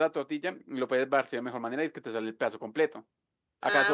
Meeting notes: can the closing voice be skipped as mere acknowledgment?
Yes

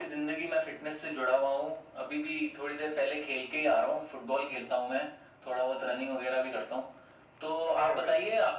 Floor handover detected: No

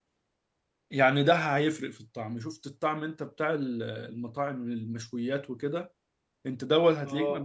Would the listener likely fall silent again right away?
Yes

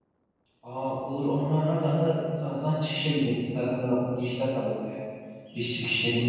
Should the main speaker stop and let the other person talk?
No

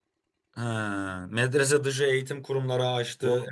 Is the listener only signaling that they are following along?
No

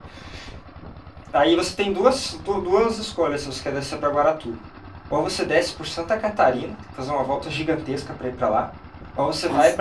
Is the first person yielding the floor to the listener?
No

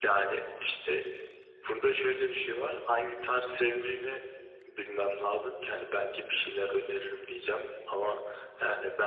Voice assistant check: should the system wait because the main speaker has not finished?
No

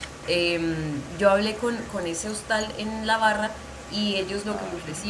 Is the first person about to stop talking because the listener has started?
No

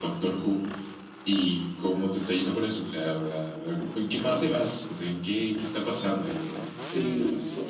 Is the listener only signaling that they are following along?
No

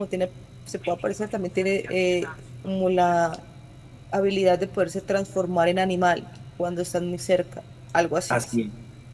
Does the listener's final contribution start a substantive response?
Yes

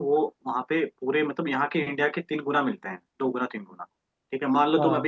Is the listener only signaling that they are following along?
Yes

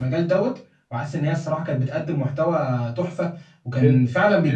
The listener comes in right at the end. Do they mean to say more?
No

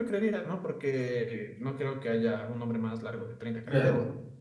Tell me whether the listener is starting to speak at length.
Yes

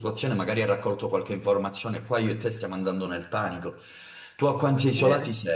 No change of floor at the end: Yes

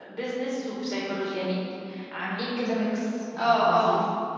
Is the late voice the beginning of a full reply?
Yes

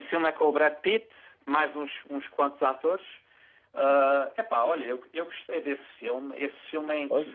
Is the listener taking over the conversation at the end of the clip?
No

